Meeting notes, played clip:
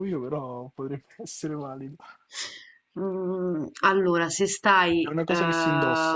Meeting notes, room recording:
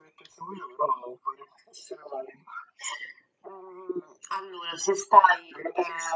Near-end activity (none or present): none